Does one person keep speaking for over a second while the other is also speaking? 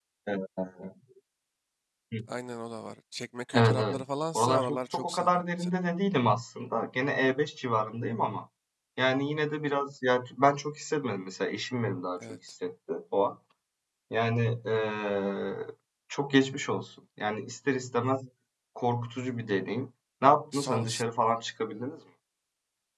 Yes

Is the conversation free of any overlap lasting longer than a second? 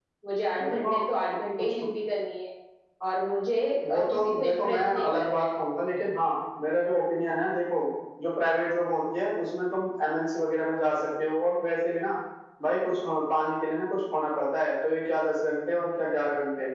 No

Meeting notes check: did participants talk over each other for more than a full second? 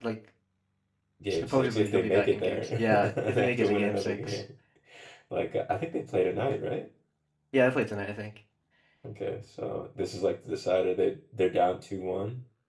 Yes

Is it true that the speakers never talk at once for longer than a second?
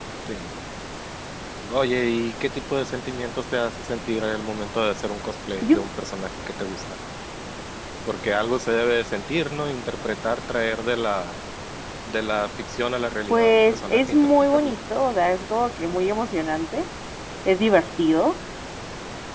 No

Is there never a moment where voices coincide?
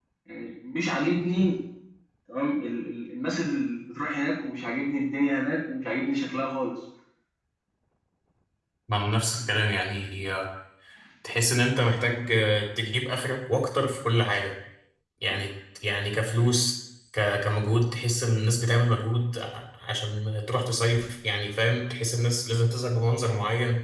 Yes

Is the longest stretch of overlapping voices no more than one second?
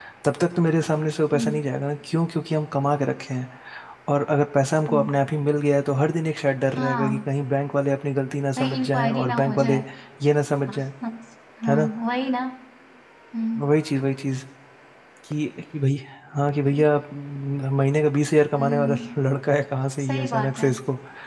No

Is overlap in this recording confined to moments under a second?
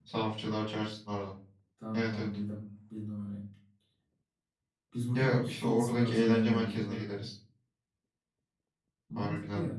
No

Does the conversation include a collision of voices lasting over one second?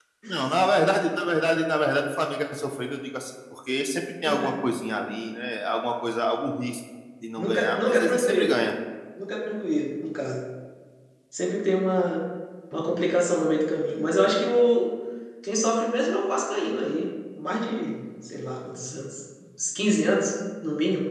Yes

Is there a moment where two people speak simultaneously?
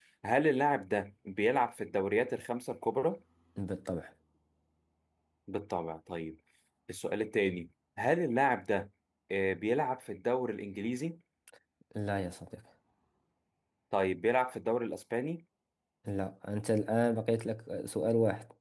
No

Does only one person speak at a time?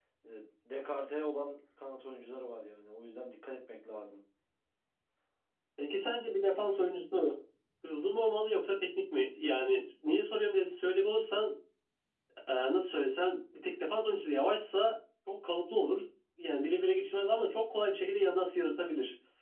Yes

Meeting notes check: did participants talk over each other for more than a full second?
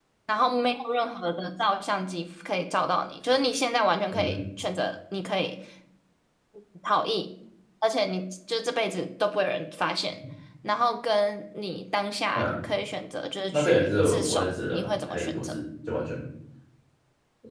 Yes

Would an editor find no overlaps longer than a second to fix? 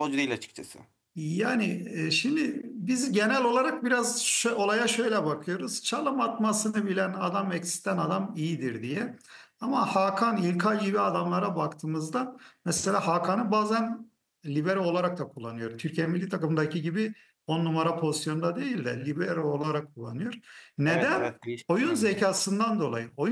Yes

